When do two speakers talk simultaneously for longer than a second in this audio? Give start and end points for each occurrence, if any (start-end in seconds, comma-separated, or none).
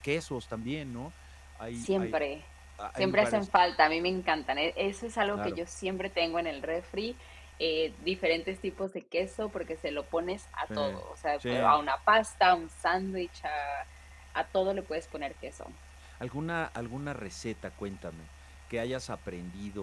none